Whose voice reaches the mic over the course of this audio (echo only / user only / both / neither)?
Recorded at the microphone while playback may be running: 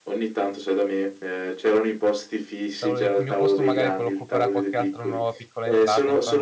both